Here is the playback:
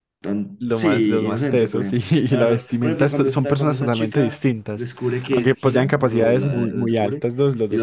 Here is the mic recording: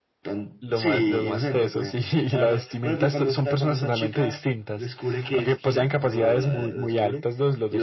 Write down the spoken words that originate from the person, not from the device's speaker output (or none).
none